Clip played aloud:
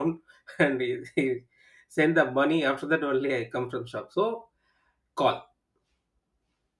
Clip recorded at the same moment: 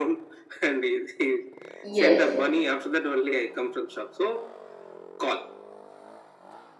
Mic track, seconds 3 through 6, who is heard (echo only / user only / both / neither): echo only